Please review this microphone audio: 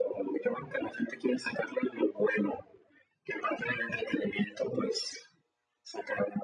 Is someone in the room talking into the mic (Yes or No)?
No